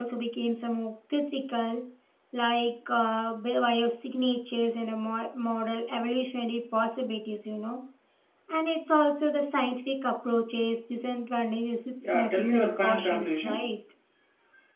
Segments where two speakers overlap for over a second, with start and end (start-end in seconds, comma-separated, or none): 12.1-13.7